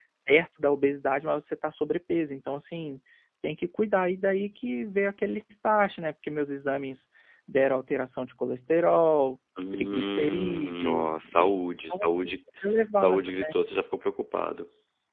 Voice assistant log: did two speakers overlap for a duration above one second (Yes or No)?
Yes